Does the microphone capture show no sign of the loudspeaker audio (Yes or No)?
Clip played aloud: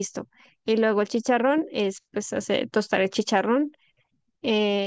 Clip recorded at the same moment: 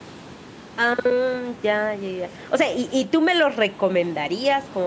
Yes